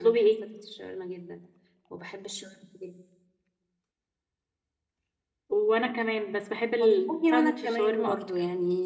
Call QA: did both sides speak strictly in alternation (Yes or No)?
No